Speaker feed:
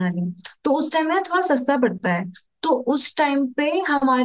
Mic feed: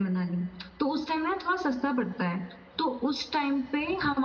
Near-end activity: none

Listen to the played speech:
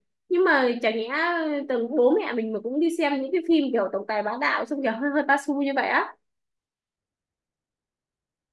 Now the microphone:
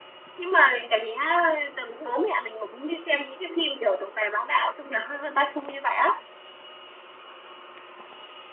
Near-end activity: none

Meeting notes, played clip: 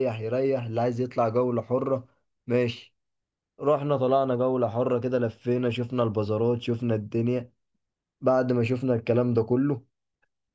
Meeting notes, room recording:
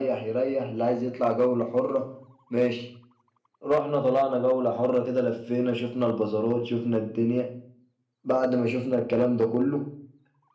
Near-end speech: none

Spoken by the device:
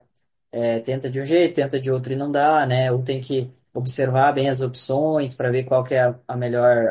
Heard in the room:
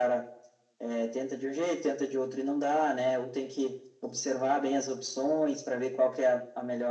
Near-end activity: none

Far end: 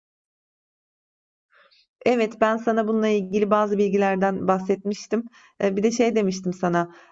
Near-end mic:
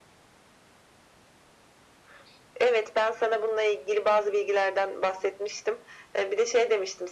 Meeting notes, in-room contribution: none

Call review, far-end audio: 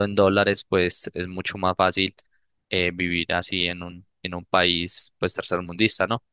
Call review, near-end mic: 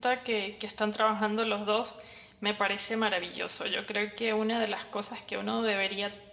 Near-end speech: present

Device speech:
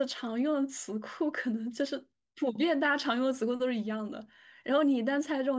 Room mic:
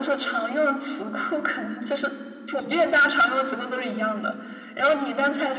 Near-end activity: none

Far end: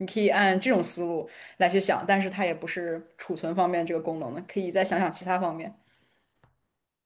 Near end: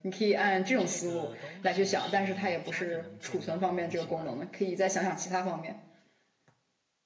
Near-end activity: present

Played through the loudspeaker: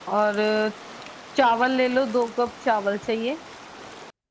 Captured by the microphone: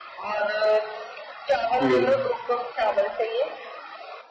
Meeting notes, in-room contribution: present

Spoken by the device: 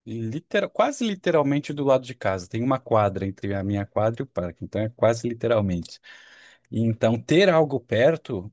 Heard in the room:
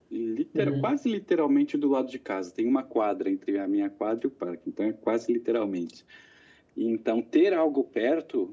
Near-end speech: present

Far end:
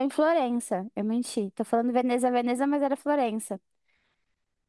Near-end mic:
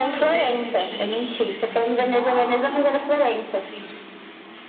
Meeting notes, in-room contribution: present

